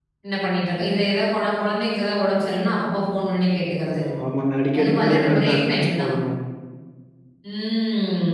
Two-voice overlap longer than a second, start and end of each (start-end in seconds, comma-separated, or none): 4.8-6.1